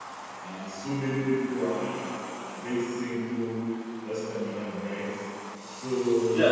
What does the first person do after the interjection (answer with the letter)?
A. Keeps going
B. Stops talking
B